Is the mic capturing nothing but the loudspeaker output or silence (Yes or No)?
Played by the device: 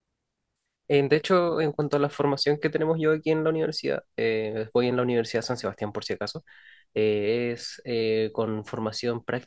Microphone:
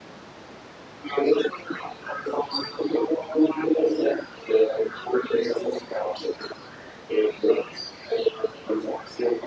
Yes